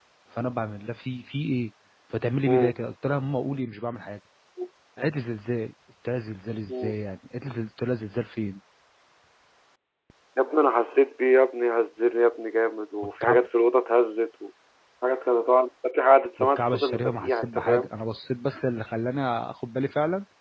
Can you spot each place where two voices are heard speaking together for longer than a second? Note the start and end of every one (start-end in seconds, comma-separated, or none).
16.4-17.9